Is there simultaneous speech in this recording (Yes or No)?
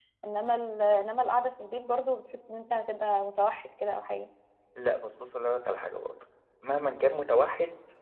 No